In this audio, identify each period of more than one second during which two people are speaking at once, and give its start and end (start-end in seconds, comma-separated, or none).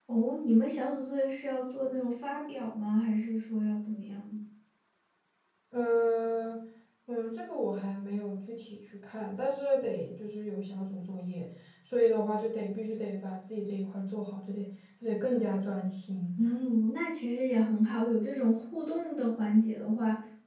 none